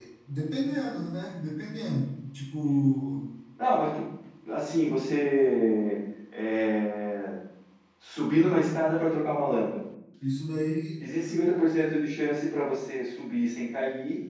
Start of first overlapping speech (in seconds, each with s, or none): none